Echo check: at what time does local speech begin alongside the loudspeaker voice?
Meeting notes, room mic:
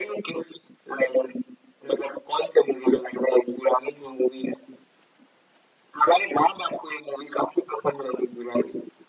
none

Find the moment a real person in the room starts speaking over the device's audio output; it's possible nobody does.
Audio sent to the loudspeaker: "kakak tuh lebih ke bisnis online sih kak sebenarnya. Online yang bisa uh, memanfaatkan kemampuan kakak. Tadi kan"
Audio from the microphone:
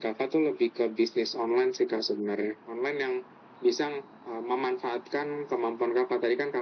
none

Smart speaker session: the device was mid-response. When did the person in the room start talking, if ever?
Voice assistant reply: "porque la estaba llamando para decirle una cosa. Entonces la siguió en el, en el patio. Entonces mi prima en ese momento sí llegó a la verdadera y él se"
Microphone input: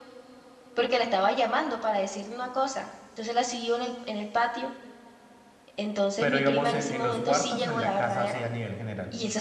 6 s

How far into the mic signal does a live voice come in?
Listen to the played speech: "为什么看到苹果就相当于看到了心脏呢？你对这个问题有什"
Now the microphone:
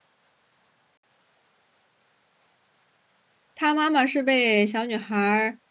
4 s

